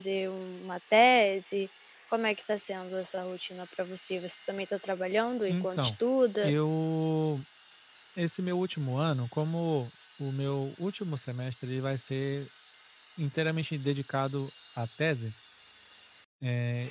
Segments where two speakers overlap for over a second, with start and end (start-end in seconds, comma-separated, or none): none